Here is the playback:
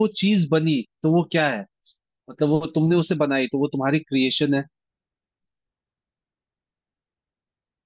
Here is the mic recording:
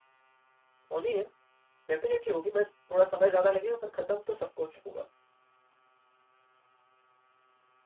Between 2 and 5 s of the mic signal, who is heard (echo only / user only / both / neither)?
user only